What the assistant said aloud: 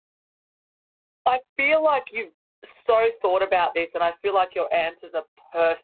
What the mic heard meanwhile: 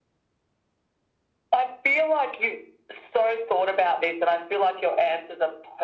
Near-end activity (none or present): none